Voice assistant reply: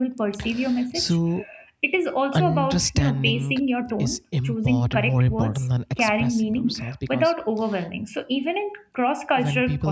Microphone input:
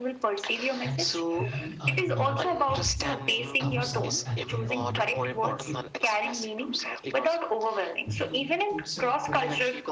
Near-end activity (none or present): present